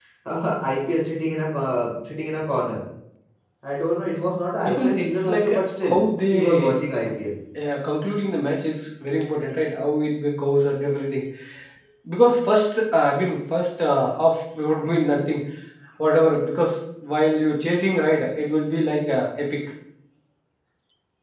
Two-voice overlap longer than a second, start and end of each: 4.6-5.9

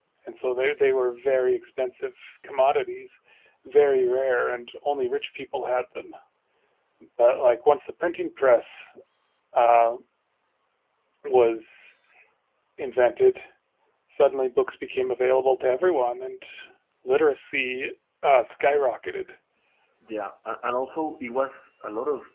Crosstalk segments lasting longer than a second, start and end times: none

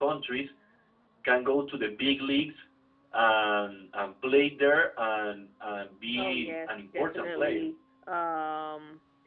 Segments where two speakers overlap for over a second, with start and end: 6.2-7.6

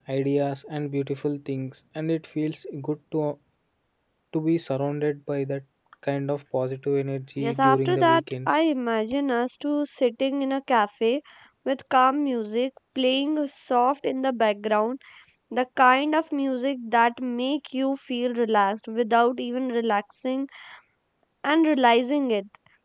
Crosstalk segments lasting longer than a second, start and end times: 7.4-8.6

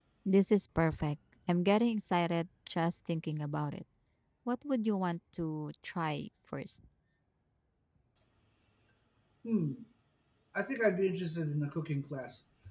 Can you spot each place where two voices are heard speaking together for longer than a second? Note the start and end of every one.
none

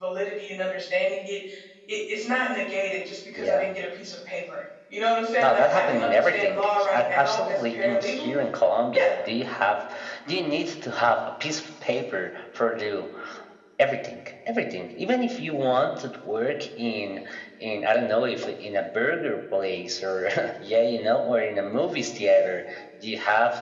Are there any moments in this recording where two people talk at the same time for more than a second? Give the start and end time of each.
5.4-8.3

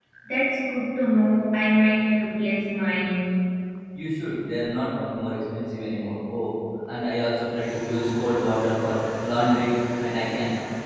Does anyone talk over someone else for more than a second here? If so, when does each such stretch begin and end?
none

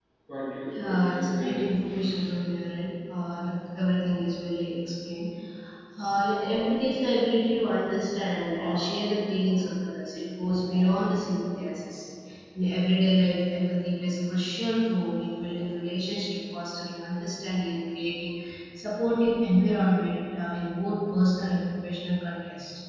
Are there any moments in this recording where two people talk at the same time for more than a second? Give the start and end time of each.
0.8-2.1

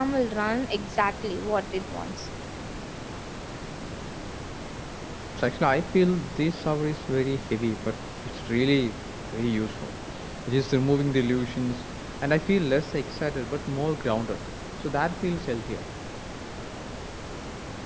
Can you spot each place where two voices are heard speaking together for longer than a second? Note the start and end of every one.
none

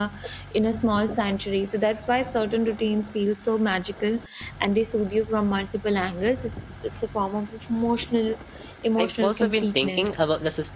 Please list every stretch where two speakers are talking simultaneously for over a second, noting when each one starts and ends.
9.0-10.2

